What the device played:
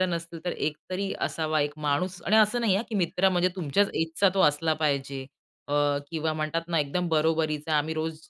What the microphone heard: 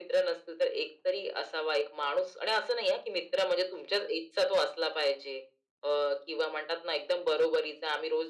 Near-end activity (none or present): none